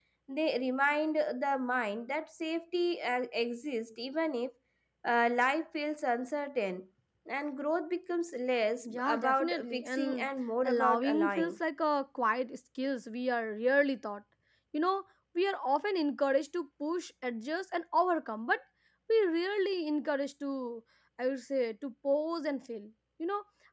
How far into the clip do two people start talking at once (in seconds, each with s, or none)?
8.8 s